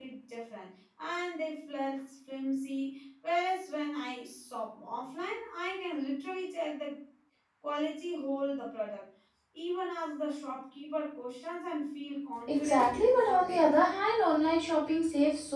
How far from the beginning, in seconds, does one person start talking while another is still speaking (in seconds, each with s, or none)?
12.5 s